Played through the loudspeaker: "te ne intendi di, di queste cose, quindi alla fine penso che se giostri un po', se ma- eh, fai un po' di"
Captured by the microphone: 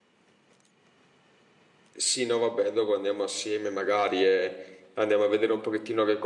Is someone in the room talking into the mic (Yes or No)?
Yes